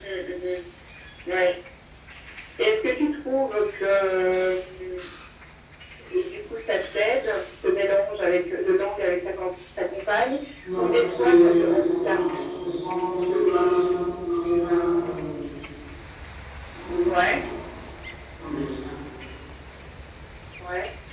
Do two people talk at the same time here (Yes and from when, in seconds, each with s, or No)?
Yes, from 10.8 s